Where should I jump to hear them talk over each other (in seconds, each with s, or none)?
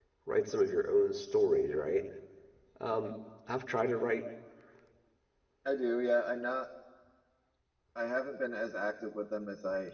none